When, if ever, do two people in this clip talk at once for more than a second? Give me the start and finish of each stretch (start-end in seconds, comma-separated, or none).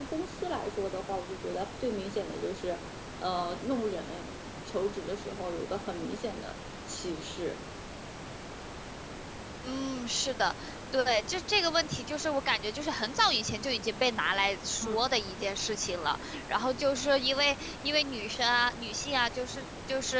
none